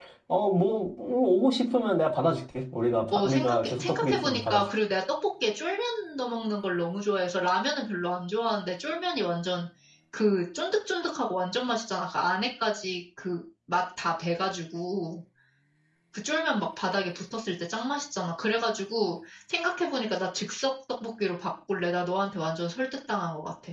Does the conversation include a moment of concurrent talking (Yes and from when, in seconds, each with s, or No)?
Yes, from 3.1 s